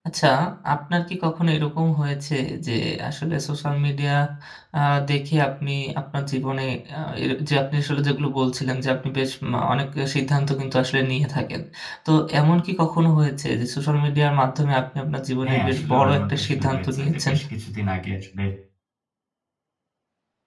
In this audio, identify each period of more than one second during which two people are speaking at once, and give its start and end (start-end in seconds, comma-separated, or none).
15.4-17.3